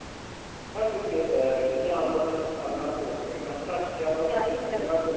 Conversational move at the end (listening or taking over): listening